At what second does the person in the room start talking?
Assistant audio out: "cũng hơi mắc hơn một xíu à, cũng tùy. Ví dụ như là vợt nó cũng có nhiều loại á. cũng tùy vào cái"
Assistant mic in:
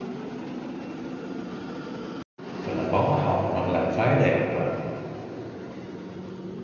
2.6 s

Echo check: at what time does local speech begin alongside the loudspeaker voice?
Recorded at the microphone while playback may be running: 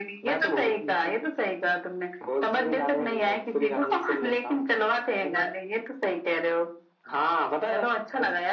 none

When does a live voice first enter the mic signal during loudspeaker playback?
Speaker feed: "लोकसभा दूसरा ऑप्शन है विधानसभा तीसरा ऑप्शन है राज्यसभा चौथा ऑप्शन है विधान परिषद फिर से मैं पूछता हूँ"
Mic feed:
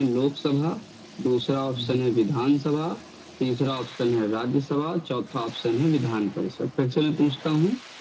1.8 s

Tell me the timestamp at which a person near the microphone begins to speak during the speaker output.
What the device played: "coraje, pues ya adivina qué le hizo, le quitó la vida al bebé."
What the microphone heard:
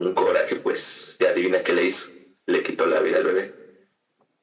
none

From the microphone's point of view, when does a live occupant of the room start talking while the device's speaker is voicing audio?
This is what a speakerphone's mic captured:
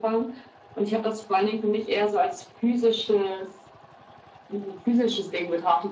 none

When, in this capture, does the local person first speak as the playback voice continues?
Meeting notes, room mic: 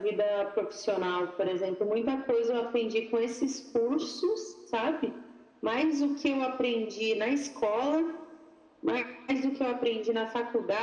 none

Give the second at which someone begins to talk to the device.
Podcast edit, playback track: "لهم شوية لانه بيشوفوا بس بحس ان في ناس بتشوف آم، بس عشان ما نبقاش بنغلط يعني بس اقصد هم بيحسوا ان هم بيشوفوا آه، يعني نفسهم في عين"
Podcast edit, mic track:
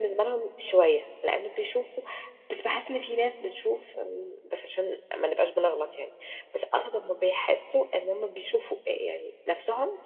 none

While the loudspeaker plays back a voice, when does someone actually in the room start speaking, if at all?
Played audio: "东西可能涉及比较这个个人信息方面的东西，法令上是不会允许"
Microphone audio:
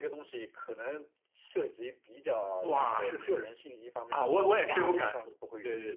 2.6 s

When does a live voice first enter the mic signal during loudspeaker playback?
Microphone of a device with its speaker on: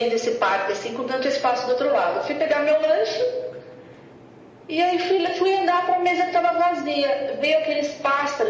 none

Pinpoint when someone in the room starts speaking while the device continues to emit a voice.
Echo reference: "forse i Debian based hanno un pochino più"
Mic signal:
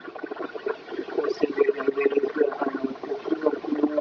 none

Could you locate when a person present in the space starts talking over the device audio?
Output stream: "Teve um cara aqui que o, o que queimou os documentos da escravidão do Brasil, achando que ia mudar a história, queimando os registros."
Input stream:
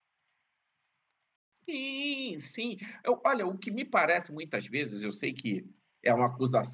1.7 s

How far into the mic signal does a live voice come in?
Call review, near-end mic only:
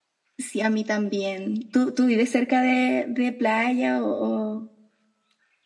none

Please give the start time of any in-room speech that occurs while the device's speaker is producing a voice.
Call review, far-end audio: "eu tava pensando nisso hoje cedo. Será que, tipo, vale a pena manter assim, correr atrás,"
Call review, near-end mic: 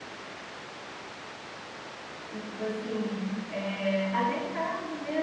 2.3 s

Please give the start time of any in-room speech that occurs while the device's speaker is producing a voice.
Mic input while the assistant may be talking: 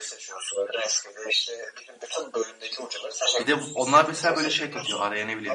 3.4 s

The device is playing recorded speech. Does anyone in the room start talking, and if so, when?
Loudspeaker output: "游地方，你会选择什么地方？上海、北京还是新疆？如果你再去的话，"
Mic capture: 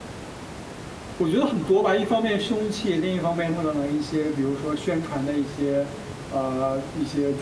1.2 s

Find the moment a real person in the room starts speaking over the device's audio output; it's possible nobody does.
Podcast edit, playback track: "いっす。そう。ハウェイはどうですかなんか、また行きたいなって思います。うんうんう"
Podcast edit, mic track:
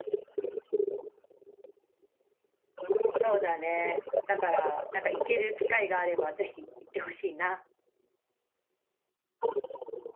3.1 s

